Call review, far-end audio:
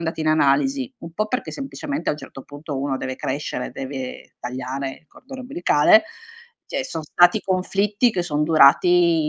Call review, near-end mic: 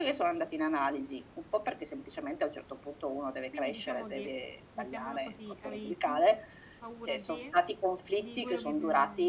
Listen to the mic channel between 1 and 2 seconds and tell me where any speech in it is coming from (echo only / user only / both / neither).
echo only